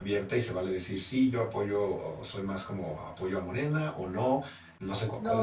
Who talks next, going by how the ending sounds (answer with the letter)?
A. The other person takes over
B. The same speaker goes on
A